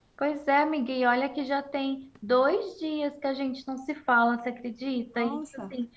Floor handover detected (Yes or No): No